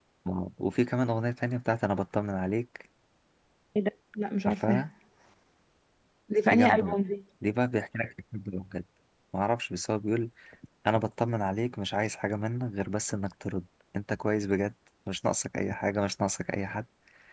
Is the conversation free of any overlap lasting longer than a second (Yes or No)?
Yes